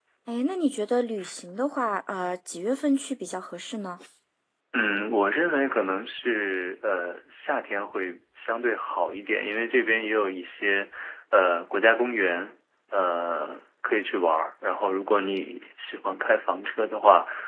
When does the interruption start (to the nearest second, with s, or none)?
none